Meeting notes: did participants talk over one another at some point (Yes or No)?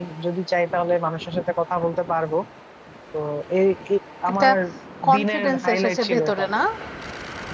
Yes